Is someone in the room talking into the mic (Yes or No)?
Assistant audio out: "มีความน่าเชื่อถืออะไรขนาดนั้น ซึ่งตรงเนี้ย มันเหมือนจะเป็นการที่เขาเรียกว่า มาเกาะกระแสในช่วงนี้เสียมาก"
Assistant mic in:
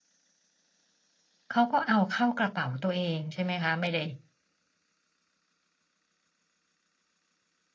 Yes